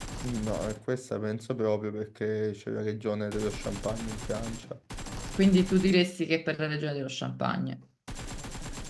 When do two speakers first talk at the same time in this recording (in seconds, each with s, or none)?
none